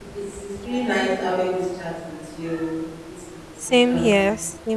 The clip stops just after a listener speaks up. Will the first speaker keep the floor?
No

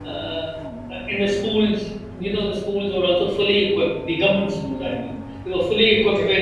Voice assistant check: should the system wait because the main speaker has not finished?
Yes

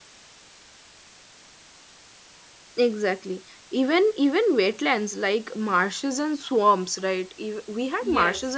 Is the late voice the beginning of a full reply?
No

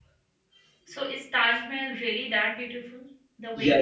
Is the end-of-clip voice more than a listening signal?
Yes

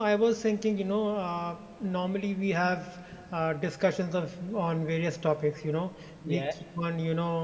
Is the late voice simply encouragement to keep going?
Yes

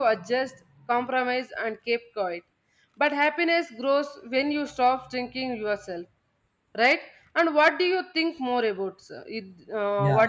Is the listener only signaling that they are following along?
No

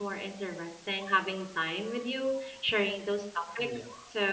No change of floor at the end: Yes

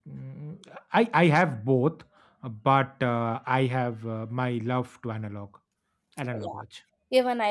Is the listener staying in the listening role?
No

